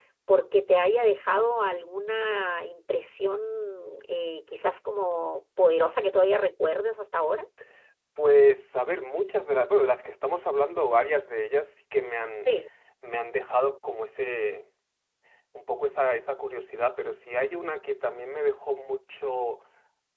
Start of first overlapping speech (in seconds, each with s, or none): none